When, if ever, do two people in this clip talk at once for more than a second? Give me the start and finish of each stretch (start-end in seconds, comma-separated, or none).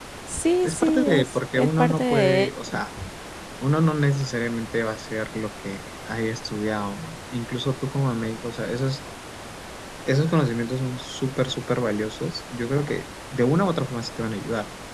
0.6-2.7